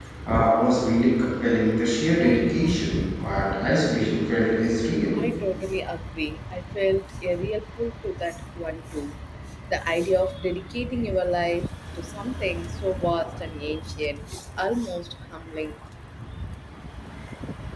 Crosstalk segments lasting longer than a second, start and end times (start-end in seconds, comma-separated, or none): none